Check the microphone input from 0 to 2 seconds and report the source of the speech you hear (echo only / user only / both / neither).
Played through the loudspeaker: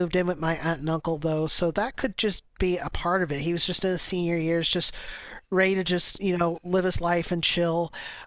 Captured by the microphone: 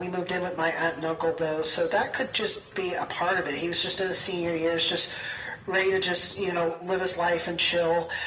echo only